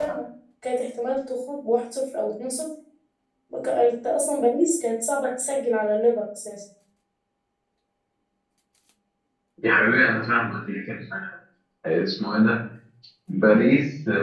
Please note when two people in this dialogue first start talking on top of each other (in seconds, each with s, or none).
none